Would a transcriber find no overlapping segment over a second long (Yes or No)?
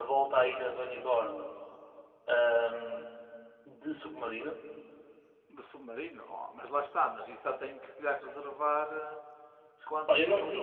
Yes